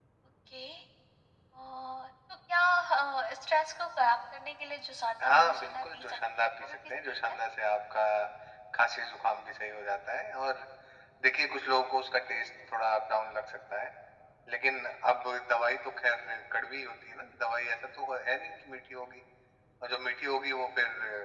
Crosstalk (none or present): present